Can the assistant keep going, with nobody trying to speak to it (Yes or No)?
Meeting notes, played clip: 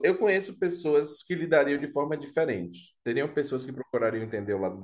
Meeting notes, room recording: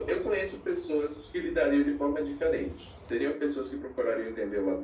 Yes